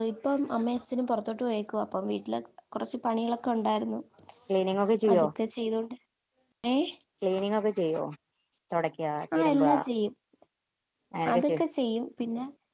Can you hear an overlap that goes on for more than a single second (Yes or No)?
No